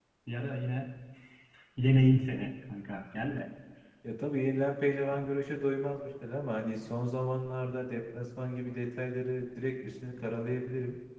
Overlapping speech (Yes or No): No